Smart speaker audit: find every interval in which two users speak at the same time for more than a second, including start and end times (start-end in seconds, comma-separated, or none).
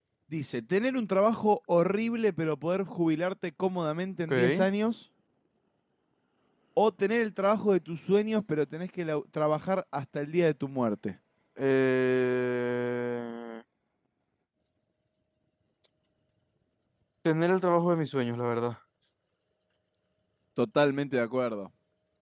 none